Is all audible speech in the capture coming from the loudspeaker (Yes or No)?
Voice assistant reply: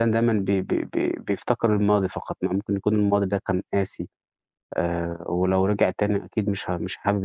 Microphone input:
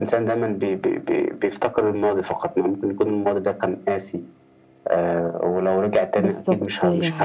No